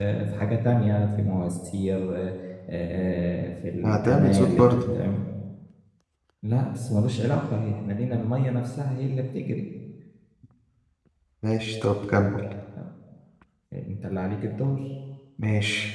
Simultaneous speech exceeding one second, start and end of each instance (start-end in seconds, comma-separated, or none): 3.8-5.0